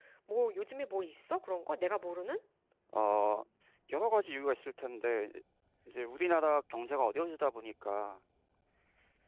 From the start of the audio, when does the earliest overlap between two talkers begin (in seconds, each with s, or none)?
none